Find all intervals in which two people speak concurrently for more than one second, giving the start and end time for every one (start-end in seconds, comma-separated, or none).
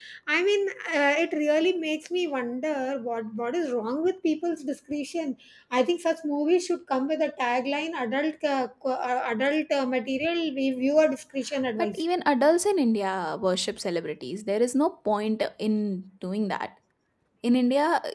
none